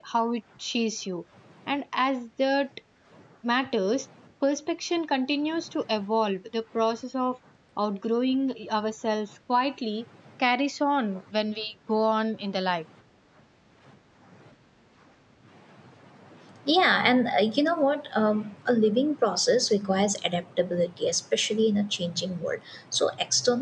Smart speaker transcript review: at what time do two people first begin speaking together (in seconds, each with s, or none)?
none